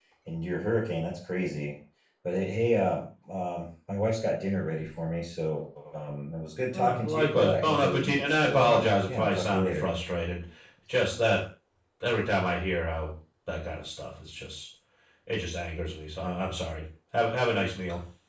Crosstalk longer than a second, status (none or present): present